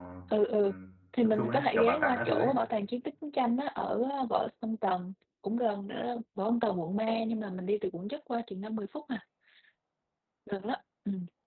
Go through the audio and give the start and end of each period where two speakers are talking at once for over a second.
1.2-2.5

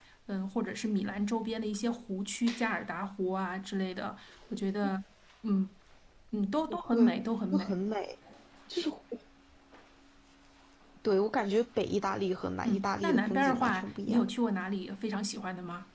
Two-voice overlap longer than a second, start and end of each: 12.6-14.2

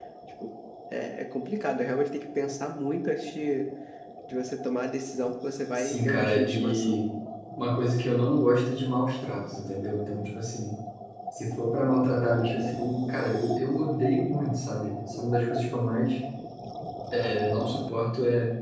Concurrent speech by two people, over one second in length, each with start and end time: 5.8-7.0

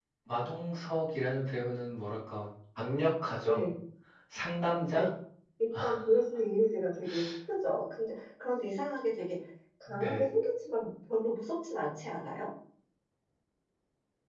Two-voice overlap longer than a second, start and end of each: none

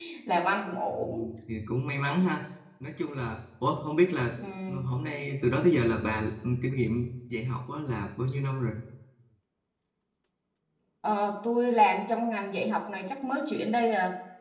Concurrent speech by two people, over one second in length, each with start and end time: none

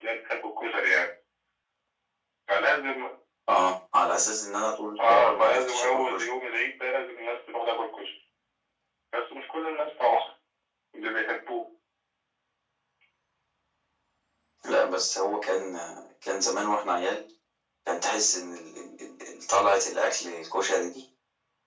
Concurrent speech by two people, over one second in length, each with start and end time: 5.0-6.2

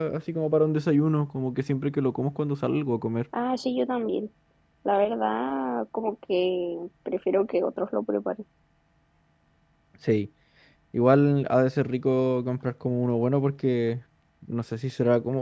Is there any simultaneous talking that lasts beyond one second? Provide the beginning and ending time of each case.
none

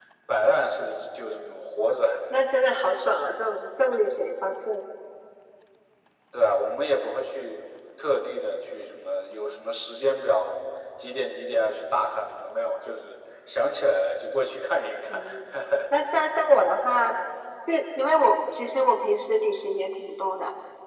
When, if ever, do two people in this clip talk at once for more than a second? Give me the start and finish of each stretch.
none

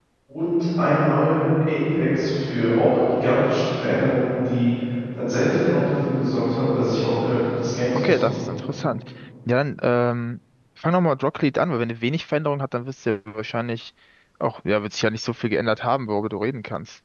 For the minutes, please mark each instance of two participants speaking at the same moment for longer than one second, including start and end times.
none

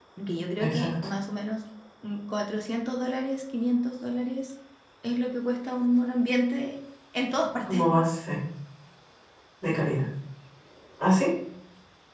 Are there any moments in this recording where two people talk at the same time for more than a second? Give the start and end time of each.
none

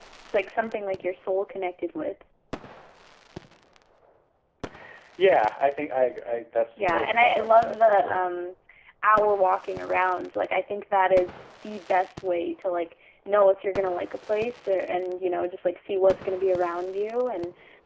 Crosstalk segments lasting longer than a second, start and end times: 6.8-8.2

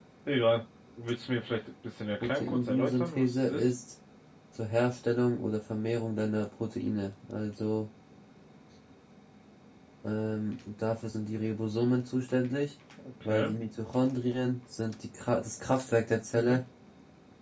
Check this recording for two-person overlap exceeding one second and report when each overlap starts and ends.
2.2-3.7

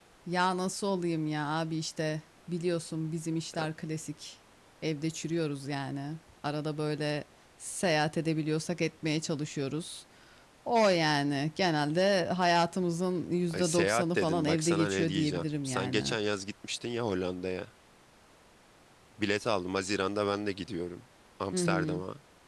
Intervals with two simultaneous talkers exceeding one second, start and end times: 13.5-16.2

